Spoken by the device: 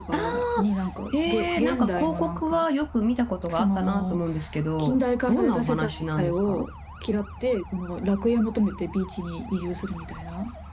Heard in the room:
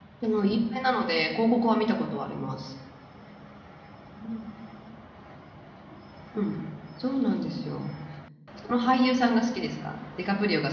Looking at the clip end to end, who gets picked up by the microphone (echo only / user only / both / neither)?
user only